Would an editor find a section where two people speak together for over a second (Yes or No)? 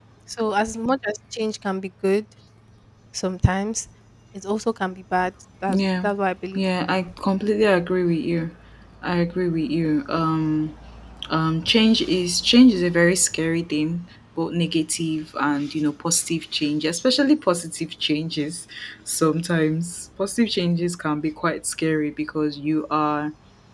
No